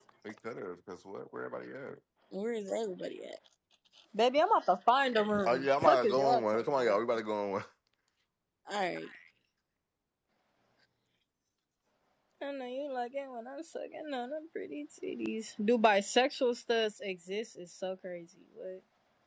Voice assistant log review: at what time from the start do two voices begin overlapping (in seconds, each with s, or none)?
5.5 s